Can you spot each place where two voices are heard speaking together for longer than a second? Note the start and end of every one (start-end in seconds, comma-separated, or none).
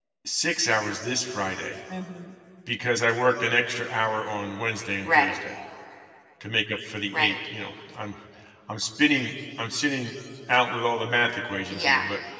none